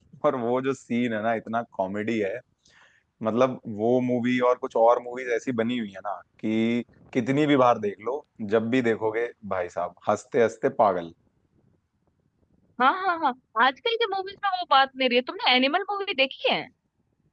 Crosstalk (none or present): none